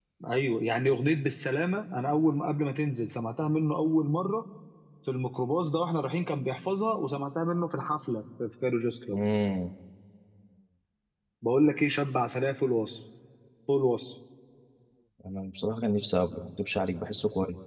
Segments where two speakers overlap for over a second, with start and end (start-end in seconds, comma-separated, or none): none